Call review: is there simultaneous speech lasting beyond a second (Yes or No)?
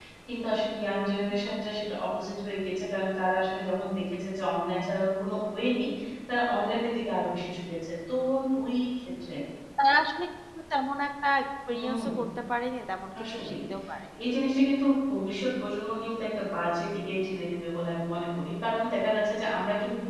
No